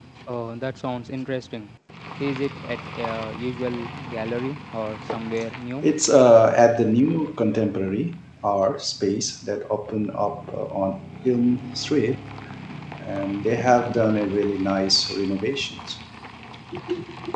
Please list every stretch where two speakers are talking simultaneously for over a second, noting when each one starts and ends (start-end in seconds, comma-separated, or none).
none